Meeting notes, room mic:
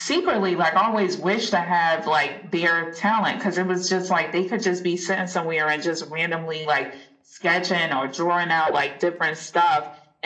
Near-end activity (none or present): none